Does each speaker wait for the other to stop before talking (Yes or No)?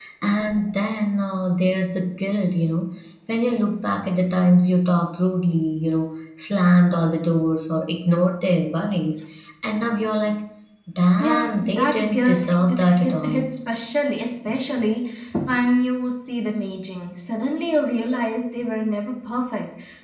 No